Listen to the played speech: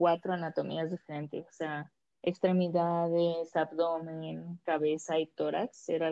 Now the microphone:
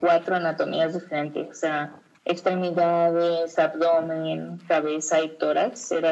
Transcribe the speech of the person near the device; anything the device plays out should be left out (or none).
none